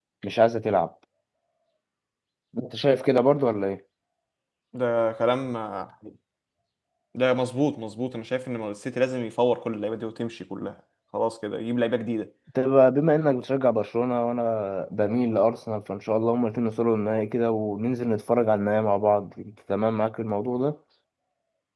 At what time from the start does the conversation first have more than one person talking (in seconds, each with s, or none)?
none